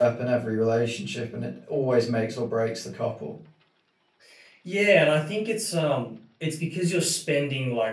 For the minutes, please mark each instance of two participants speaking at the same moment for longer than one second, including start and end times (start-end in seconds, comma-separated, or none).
none